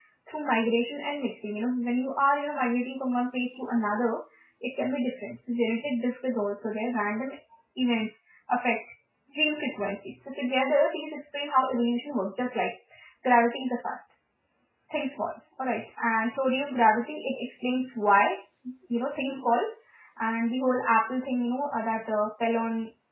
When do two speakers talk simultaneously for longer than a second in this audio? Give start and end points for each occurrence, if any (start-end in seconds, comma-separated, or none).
none